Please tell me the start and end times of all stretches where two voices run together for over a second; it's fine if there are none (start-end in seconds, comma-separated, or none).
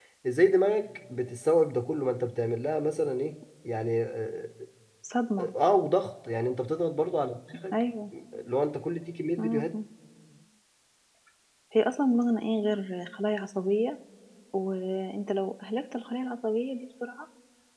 none